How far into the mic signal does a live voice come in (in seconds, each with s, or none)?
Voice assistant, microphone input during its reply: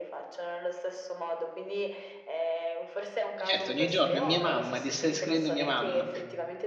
3.4 s